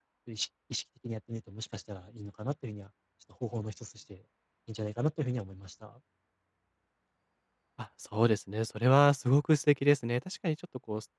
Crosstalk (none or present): none